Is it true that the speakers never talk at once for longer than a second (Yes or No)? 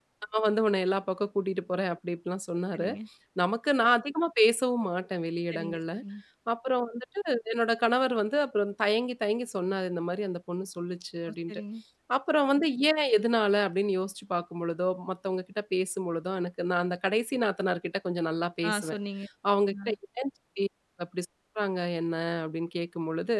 Yes